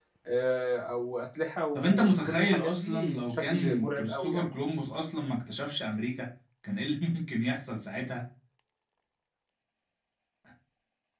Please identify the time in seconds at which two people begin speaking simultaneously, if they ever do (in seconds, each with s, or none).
1.8 s